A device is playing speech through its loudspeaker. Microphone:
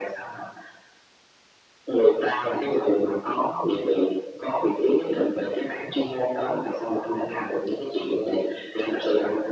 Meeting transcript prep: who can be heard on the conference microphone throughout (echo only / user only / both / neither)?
echo only